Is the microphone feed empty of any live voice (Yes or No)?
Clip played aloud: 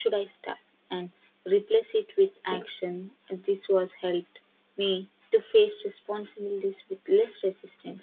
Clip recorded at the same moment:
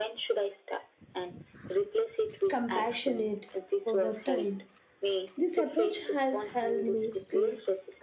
No